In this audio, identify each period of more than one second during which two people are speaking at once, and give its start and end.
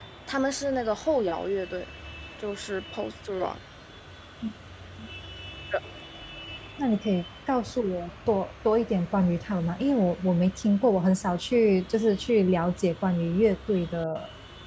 none

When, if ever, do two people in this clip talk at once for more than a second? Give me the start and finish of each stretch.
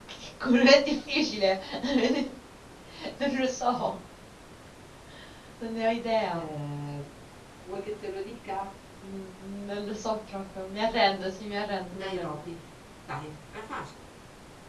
none

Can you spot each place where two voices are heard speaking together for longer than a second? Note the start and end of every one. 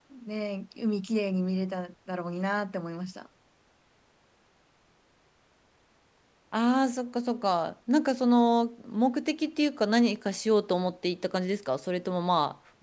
none

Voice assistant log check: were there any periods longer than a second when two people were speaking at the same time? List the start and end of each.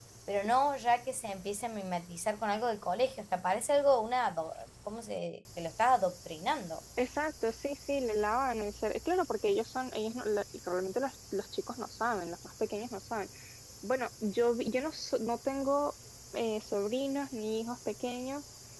none

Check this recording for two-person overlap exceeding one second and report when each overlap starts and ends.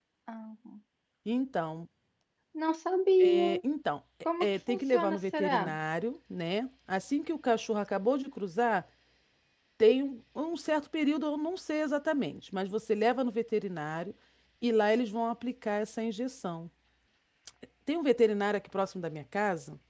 4.4-5.8

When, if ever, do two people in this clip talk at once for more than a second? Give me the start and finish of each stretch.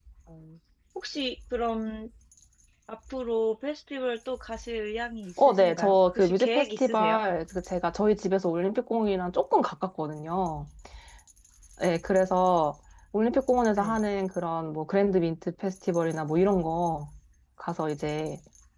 5.4-7.2

